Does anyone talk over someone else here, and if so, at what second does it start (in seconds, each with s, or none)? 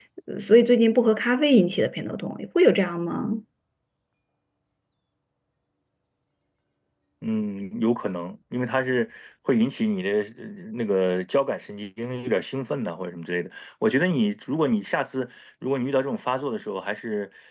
none